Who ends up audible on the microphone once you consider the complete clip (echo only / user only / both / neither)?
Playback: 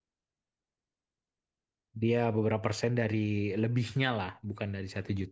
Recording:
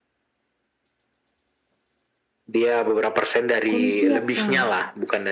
both